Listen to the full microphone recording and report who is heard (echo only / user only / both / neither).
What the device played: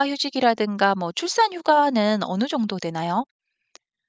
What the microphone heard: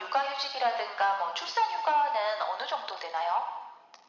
echo only